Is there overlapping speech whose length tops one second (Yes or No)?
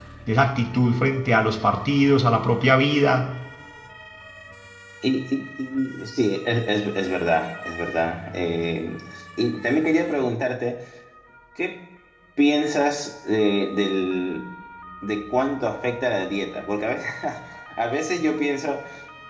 No